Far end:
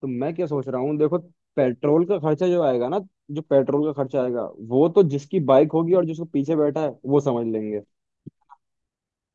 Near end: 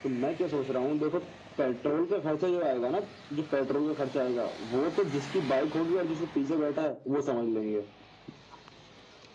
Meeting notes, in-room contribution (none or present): none